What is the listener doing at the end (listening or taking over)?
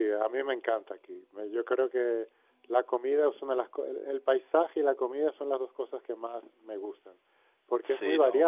listening